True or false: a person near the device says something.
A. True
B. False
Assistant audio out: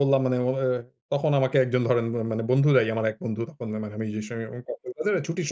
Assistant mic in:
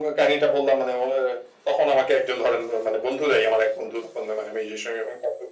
B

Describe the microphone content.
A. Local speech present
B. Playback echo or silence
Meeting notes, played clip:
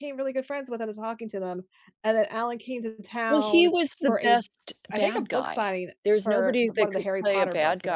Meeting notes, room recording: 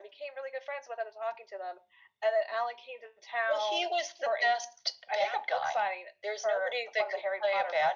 B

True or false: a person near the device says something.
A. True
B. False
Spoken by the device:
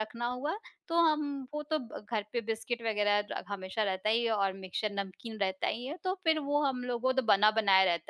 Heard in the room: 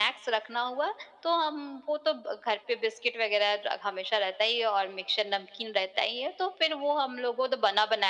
B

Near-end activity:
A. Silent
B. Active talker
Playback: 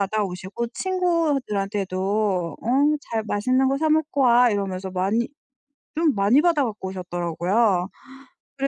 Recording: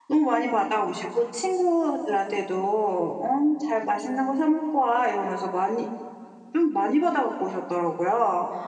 A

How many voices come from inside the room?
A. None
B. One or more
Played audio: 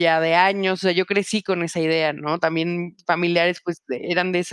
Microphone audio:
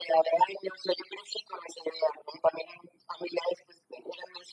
A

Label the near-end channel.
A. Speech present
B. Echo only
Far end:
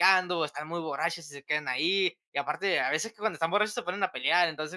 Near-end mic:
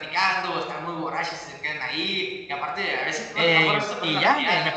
A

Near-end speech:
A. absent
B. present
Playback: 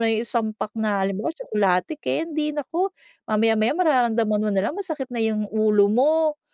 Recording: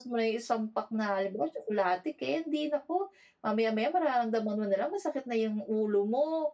A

